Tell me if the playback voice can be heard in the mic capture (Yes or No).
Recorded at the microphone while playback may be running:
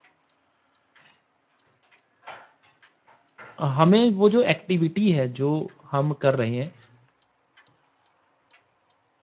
No